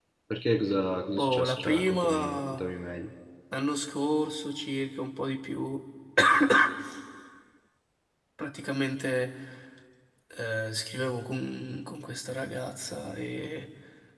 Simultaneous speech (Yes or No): Yes